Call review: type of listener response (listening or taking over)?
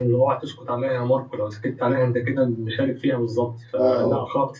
listening